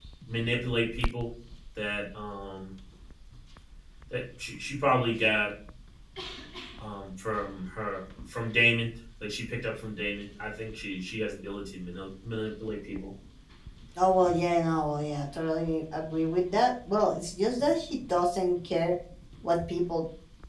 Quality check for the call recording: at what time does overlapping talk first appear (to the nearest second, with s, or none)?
none